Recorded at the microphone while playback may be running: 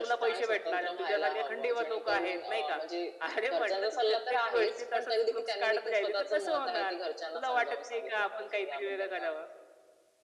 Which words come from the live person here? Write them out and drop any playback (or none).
none